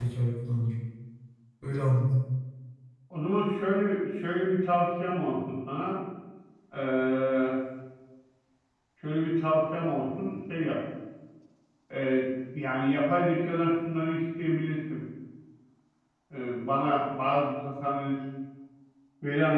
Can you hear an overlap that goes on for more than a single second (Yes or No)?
No